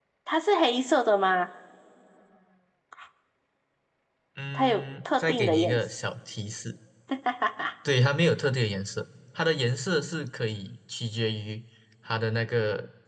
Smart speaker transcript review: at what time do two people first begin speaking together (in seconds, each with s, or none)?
4.5 s